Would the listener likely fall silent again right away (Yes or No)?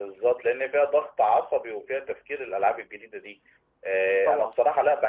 Yes